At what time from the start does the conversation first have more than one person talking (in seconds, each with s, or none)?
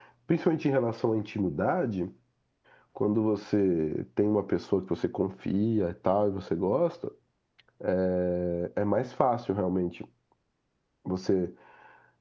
none